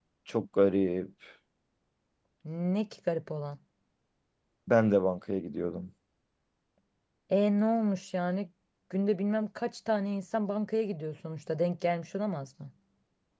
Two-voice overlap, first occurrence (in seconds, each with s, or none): none